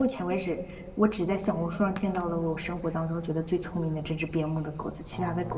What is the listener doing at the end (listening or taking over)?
taking over